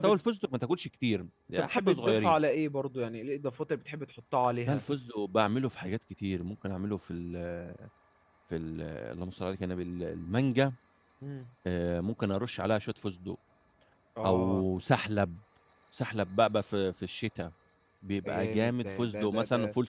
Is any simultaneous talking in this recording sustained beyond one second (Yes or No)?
Yes